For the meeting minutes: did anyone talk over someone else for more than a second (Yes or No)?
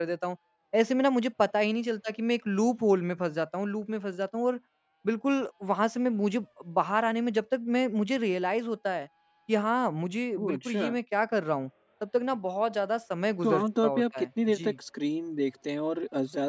Yes